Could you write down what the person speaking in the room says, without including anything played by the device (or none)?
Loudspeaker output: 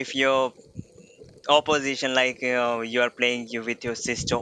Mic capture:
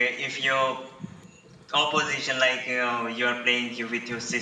none